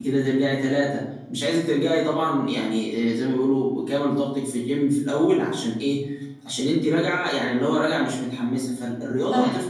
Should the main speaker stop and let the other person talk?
No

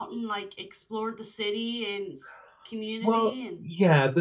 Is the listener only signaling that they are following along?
No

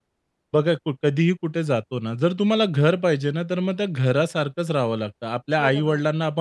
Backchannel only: Yes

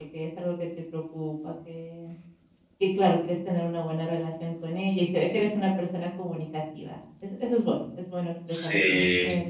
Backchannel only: Yes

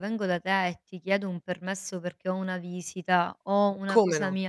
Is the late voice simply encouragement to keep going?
Yes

